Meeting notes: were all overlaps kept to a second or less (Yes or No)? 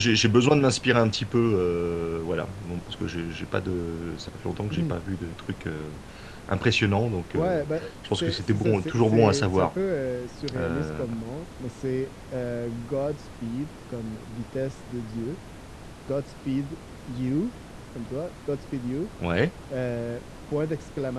No